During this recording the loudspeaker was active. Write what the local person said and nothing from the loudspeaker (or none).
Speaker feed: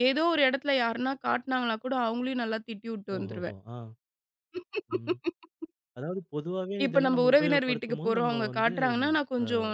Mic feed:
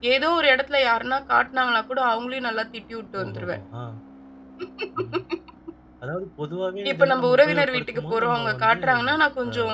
none